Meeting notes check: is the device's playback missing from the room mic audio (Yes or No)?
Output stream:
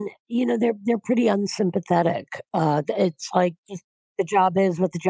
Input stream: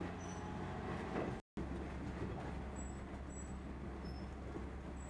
Yes